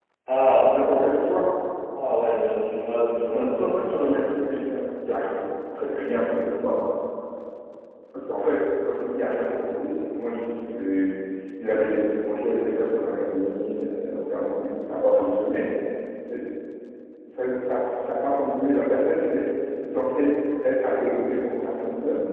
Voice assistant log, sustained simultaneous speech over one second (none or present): present